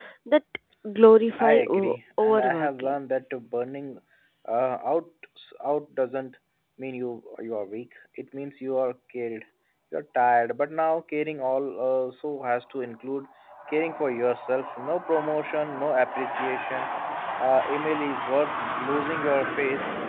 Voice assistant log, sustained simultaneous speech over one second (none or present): present